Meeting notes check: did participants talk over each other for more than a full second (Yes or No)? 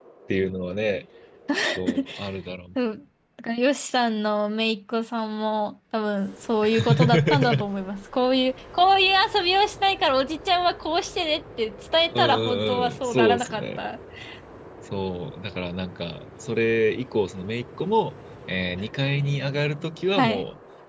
Yes